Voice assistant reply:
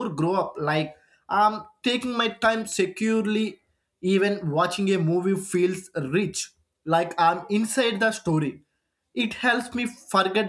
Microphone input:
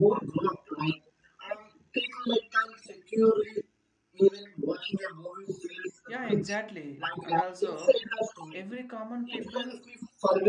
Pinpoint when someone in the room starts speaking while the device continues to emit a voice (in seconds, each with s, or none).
6.0 s